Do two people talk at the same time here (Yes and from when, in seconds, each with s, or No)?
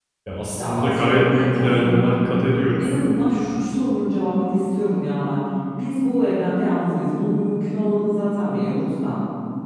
Yes, from 0.6 s